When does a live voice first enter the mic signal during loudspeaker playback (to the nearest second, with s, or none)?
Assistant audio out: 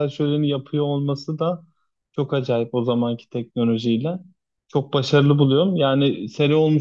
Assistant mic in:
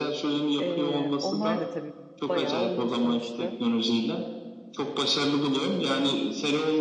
1 s